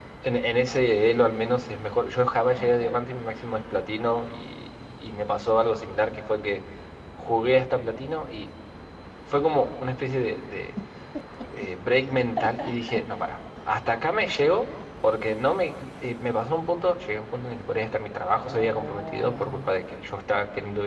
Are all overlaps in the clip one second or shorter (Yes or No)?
No